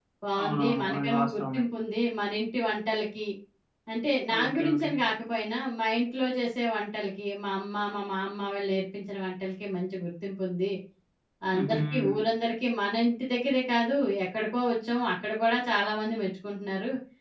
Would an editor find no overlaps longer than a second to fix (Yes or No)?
No